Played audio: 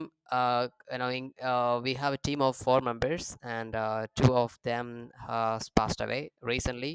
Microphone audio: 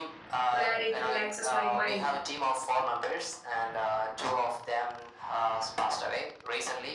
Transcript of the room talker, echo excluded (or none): where it relaxes my mind.